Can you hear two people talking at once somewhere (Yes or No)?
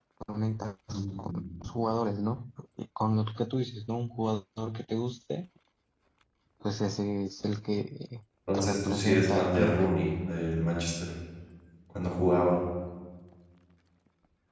Yes